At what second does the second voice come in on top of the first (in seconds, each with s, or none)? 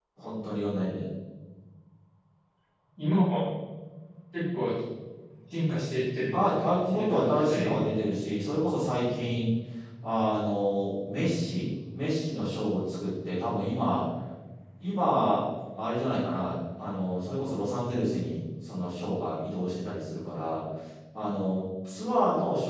6.3 s